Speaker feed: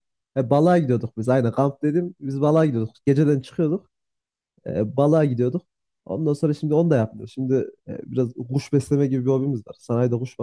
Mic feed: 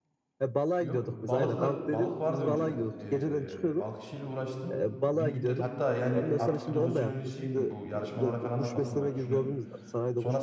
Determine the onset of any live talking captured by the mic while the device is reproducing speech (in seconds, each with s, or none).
0.8 s